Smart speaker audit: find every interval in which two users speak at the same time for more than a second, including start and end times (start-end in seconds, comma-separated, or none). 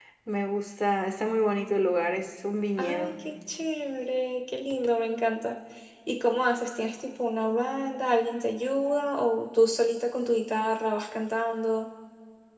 none